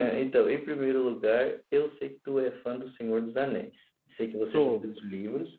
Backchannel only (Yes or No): Yes